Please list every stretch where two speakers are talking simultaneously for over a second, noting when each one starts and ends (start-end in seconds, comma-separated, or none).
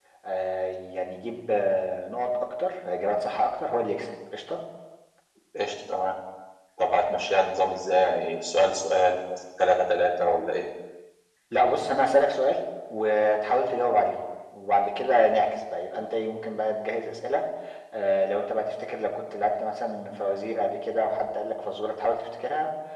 none